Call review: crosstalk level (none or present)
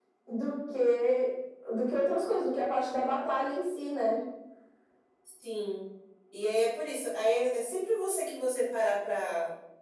none